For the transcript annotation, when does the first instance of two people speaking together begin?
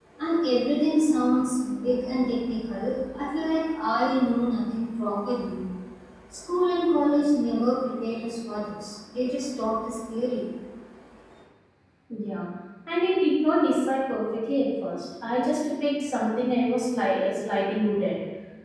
none

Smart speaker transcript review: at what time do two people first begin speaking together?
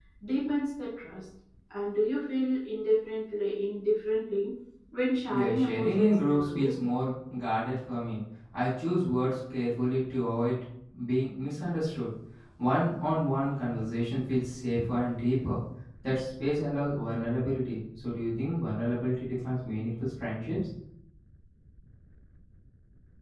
5.3 s

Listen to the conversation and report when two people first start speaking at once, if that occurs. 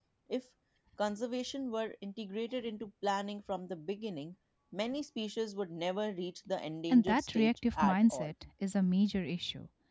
6.9 s

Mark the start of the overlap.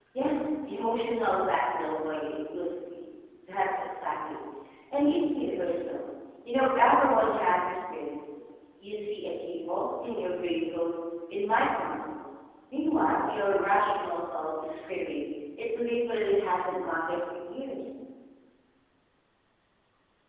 none

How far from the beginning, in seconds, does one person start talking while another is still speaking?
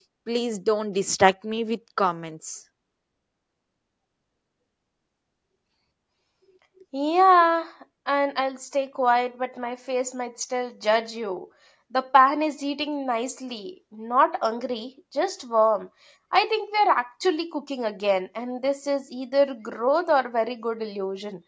none

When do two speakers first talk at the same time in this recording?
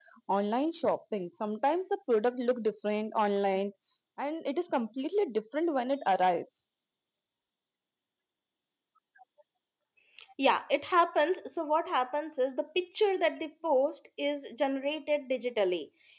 none

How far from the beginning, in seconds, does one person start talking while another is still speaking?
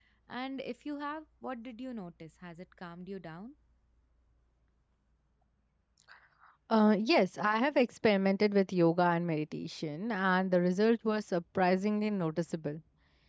none

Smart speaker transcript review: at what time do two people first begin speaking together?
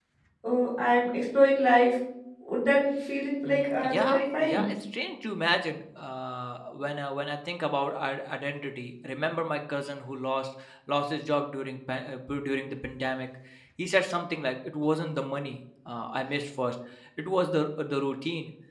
3.4 s

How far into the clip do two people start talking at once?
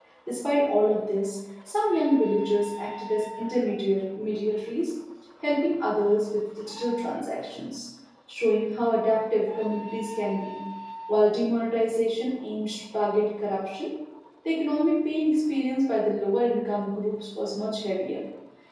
none

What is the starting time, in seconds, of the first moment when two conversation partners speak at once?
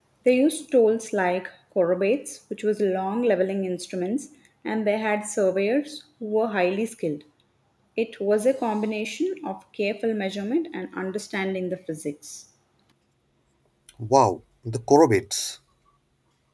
none

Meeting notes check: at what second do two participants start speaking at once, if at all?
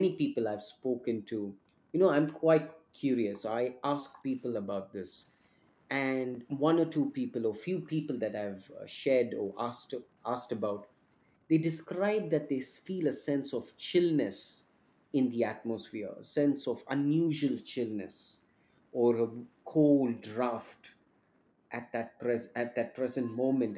none

